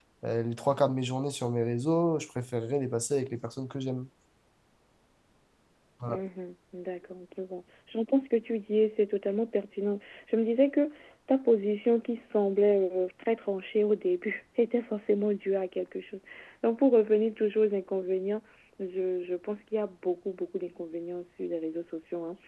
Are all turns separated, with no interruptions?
Yes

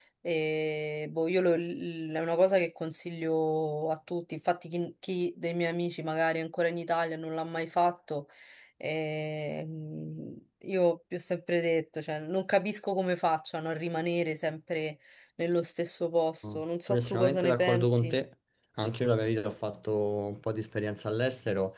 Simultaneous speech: Yes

